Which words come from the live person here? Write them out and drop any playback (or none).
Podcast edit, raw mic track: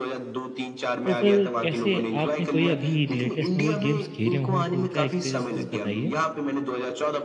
तो फिर कैसे आपने कोई अभी लेटेस्ट में कोई गेम्स खेले हों तो उनका एक्सपीरियंसेस बताइए?